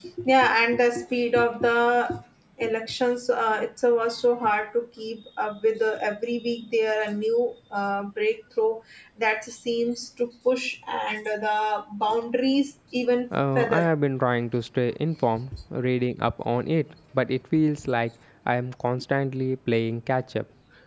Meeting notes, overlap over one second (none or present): none